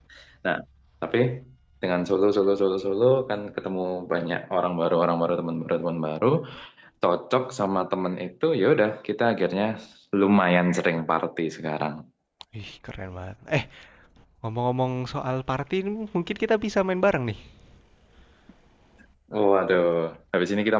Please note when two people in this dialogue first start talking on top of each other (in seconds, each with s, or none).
none